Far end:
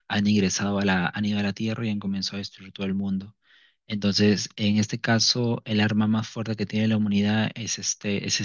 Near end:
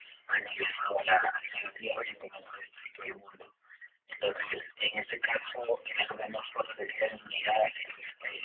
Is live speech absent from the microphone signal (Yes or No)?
Yes